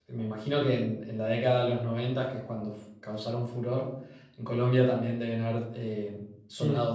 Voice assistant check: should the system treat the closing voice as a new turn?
Yes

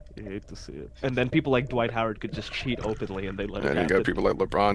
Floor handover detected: Yes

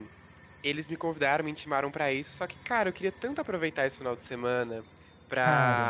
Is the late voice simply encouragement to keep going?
Yes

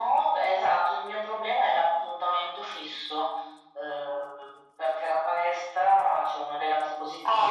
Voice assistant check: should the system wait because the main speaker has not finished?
Yes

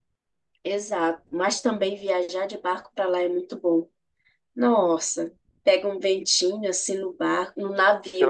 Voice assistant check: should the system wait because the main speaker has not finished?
No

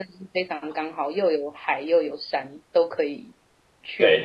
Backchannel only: No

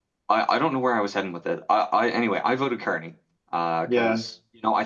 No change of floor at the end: Yes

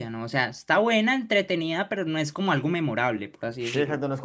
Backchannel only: No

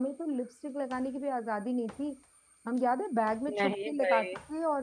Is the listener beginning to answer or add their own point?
No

